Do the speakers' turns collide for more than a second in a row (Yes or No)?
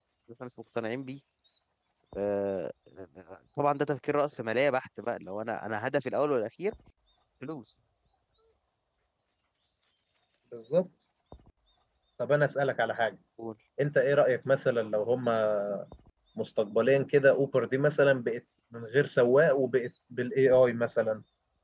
No